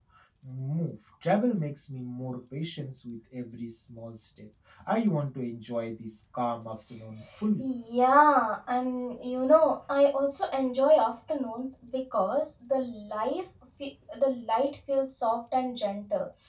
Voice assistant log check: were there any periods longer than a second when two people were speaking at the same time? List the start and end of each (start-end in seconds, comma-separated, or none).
none